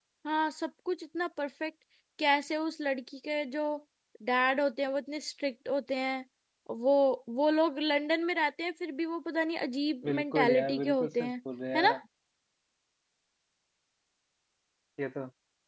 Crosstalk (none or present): present